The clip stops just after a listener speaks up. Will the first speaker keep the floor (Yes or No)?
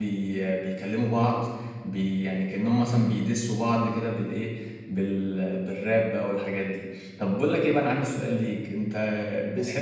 Yes